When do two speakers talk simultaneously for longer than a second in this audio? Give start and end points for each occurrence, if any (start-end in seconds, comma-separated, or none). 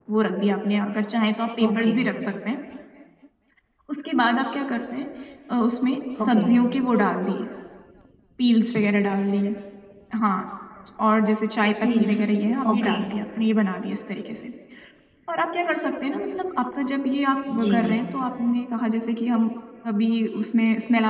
none